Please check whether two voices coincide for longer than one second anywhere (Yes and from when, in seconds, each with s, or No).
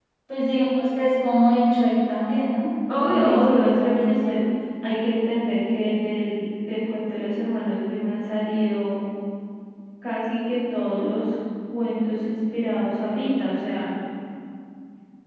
Yes, from 2.9 s